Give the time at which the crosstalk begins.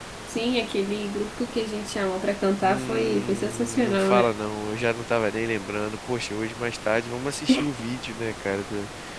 2.6 s

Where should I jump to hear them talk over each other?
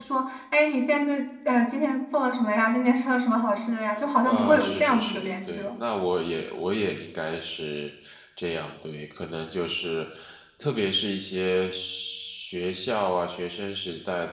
4.2 s

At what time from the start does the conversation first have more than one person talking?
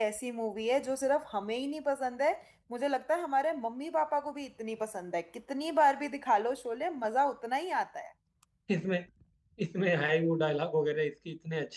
none

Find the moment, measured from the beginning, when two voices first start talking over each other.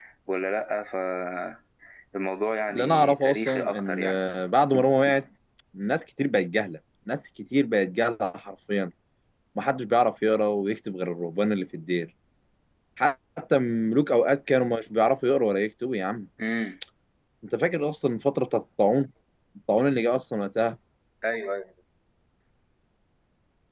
2.7 s

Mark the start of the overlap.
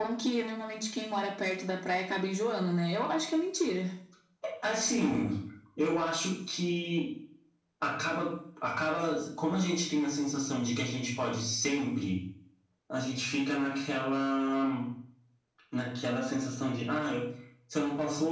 none

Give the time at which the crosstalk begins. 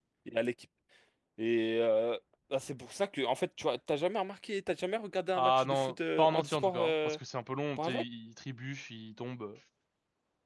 5.3 s

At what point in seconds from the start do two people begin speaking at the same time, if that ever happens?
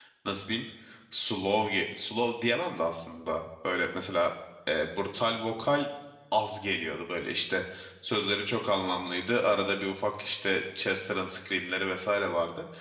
none

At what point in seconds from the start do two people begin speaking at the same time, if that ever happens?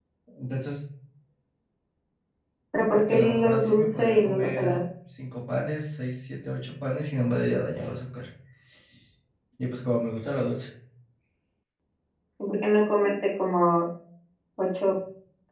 2.9 s

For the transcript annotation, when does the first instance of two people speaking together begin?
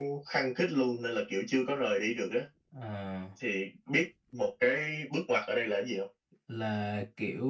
none

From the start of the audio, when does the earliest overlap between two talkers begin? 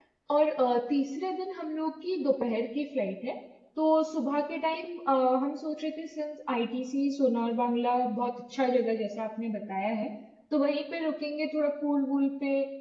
none

